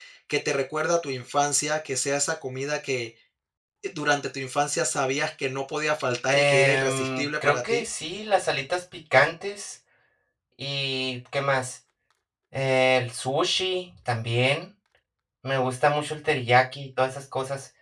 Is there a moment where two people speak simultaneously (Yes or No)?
Yes